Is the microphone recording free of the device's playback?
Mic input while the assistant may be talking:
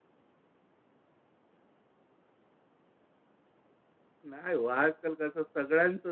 Yes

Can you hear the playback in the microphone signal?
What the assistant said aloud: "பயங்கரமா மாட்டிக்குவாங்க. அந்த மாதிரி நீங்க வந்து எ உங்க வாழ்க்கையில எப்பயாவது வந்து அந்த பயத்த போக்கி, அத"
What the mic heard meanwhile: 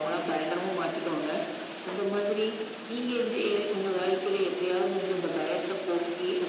Yes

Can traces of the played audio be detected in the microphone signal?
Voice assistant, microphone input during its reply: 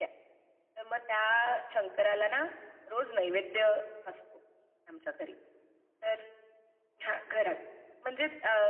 Yes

